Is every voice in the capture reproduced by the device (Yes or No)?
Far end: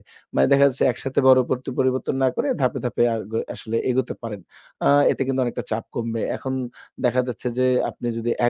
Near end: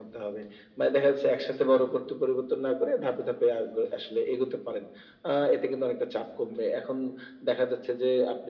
Yes